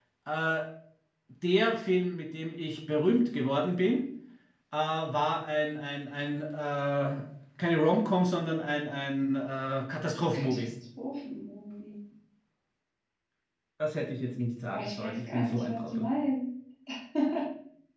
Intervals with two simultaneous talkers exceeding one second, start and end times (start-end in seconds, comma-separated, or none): 14.7-16.1